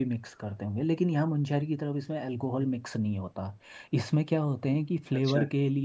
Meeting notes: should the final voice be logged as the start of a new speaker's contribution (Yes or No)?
No